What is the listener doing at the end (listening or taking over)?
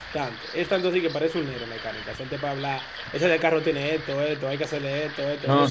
taking over